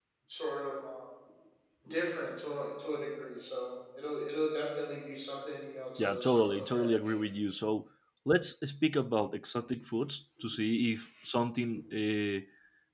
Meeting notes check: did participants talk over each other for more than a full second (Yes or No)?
Yes